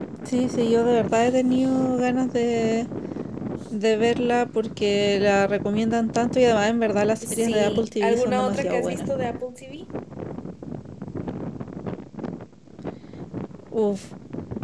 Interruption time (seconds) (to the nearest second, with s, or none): 7 s